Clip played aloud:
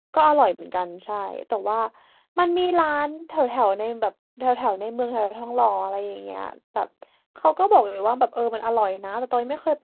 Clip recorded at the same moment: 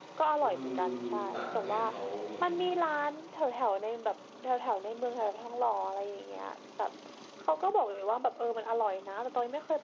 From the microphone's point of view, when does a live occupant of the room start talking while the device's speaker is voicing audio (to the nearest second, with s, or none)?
0 s